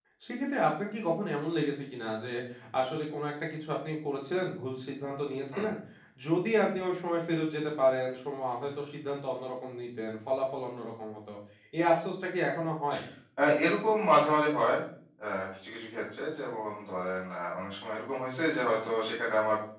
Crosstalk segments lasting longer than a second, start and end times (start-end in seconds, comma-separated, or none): none